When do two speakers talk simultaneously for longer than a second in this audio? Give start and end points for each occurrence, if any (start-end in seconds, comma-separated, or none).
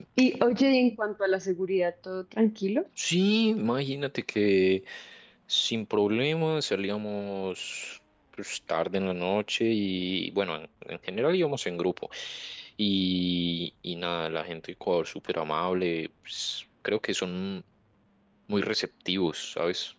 none